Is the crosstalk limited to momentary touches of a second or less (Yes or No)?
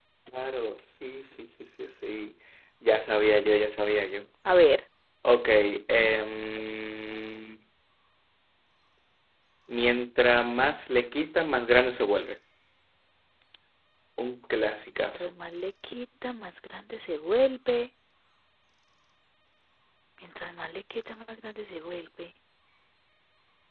Yes